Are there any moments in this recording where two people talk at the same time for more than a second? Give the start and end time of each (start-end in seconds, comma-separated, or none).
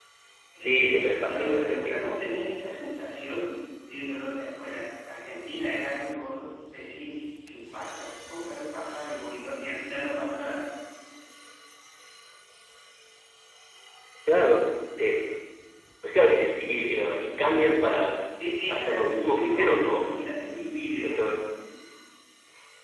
0.6-2.1, 18.7-20.1